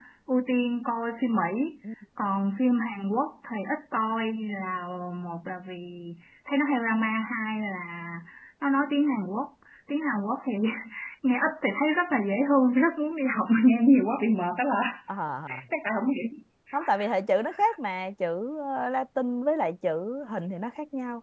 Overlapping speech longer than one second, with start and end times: none

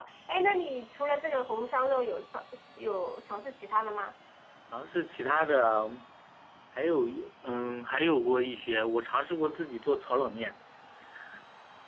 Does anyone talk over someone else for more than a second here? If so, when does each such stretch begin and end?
none

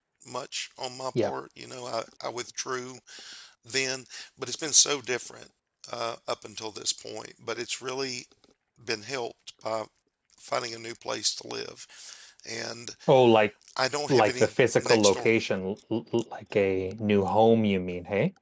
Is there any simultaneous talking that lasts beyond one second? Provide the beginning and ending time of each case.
14.1-15.3

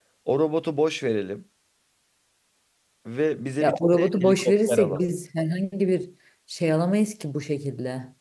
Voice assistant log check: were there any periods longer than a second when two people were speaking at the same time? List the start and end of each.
3.6-5.0

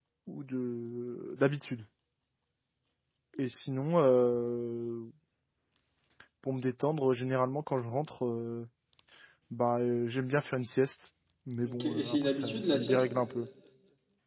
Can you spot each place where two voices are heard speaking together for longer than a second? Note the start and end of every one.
11.6-13.4

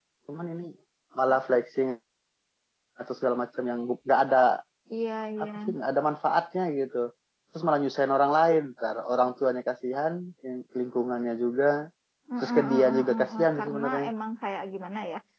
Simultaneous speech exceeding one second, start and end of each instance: 12.4-14.1

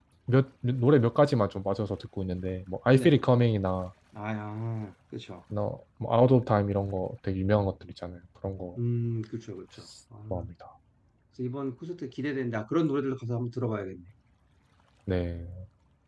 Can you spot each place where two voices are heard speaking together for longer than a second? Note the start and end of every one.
none

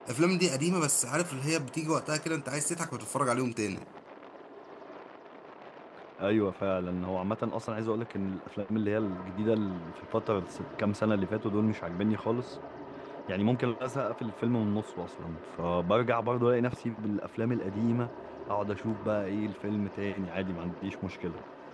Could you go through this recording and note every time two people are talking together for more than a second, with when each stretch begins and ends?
none

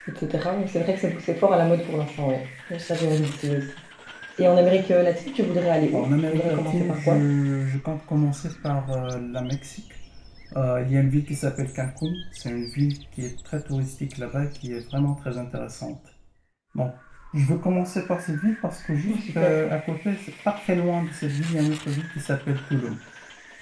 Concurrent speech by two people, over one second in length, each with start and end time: 5.9-7.2

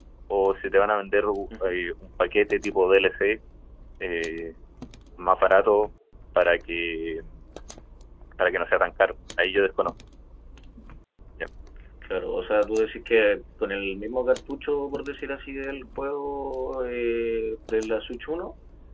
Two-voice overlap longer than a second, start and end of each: none

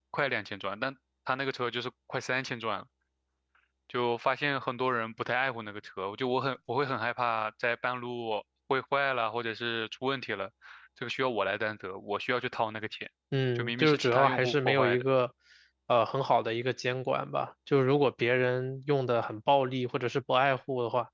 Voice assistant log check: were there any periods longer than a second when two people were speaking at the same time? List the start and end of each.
13.5-15.0

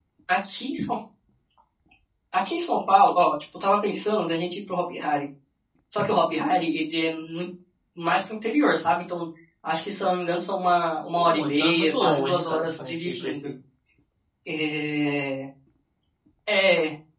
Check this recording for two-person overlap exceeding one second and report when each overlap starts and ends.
11.2-13.5

